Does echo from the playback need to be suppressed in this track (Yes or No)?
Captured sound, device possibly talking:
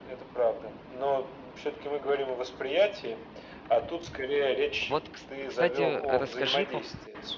Yes